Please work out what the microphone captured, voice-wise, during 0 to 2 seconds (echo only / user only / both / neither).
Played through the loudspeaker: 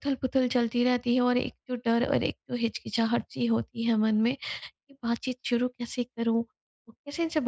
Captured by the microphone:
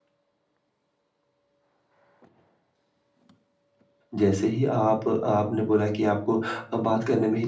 neither